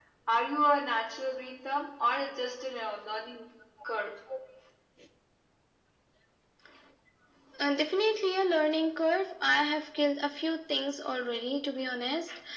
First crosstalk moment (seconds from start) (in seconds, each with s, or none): none